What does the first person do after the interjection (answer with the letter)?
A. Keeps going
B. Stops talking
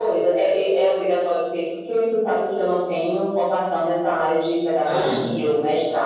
A